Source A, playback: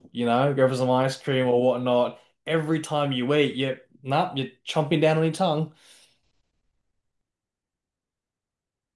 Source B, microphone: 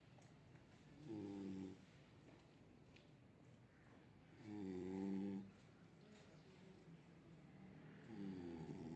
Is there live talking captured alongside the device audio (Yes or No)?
No